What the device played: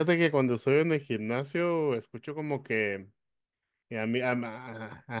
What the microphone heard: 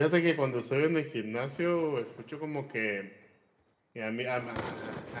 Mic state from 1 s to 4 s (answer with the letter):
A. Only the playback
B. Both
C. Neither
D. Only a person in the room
A